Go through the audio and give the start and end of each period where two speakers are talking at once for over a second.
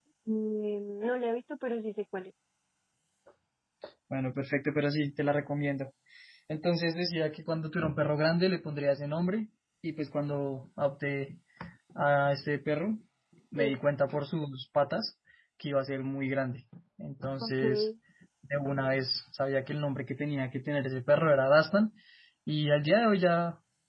none

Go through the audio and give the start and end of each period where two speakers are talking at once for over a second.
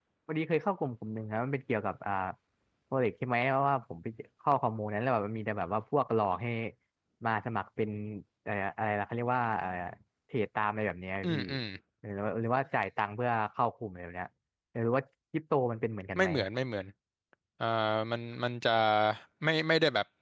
none

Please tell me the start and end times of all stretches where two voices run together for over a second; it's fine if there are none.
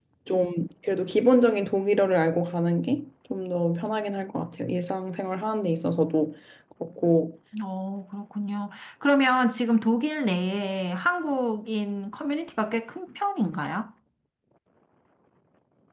none

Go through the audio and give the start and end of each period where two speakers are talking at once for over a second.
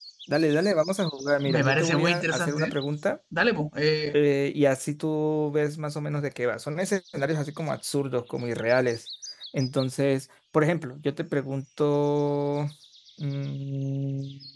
1.4-2.8

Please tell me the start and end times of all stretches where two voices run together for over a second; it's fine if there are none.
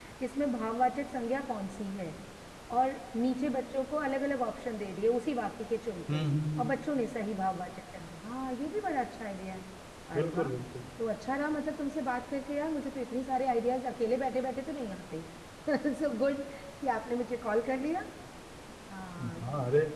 none

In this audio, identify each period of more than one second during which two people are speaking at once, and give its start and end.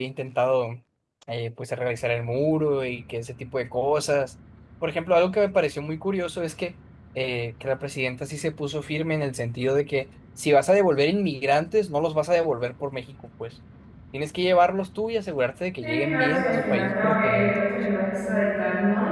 15.8-17.6

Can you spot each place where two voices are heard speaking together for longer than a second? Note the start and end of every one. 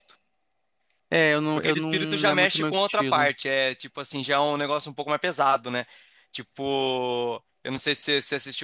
1.6-3.3

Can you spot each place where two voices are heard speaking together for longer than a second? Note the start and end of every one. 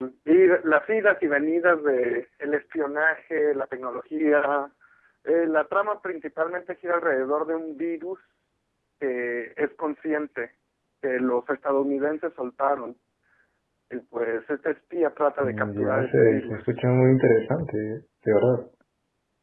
15.4-16.6

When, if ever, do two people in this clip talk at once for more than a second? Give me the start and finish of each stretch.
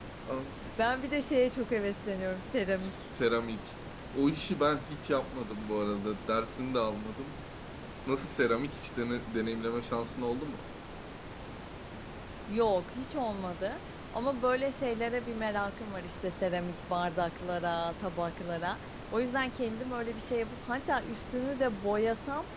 none

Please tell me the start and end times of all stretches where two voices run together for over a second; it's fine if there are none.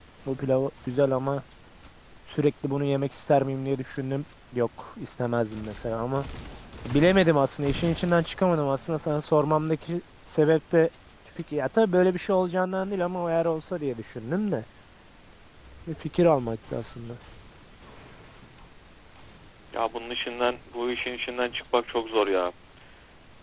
none

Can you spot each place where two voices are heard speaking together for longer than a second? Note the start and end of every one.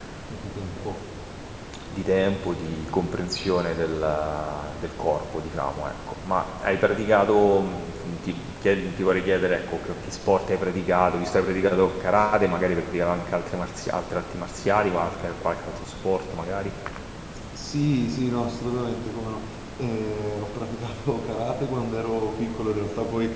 none

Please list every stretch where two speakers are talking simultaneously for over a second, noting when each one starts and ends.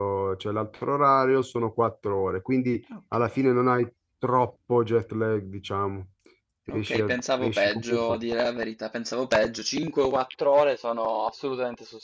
6.7-8.2

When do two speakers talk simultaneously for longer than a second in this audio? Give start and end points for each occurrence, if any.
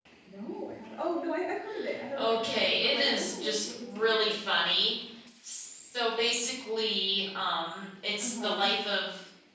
2.2-4.3

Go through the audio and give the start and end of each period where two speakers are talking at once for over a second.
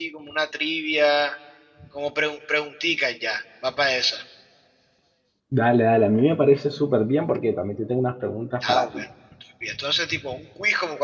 none

